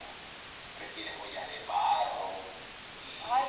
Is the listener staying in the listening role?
No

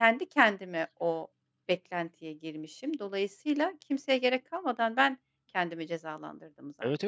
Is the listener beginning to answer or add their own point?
Yes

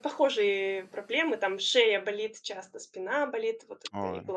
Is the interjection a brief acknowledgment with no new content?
Yes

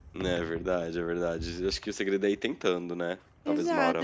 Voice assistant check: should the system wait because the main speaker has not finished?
No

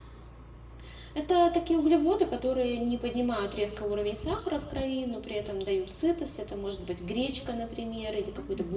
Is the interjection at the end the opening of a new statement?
No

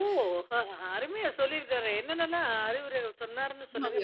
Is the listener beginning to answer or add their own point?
Yes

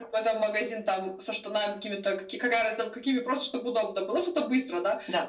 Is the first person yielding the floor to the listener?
No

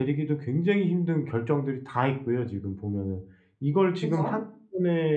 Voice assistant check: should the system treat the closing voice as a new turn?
No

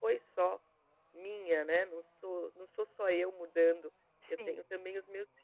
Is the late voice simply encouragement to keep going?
Yes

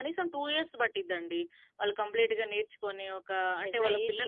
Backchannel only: No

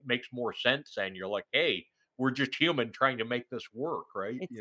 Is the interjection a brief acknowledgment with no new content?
No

